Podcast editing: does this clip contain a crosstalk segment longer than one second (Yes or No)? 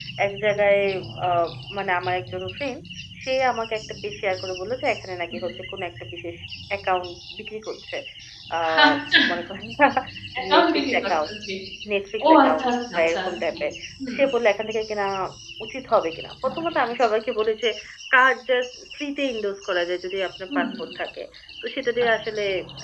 Yes